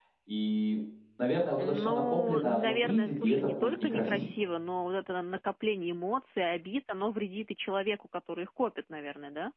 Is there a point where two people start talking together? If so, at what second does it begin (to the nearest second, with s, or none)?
2 s